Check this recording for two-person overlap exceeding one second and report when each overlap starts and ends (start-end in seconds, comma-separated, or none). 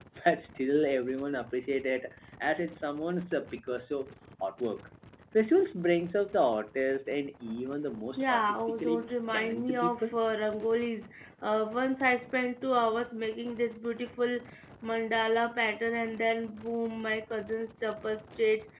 8.1-10.1